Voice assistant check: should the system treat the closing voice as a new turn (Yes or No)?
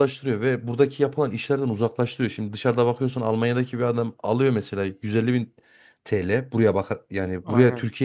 No